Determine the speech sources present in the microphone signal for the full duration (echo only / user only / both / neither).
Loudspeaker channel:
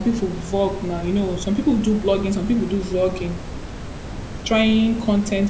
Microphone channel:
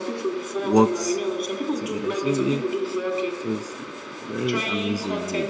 both